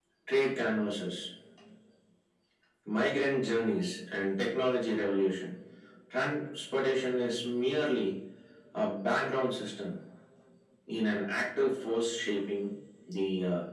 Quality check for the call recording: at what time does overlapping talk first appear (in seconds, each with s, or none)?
none